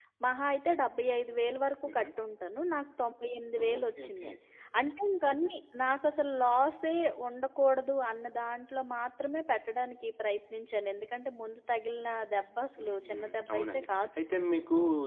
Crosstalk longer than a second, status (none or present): present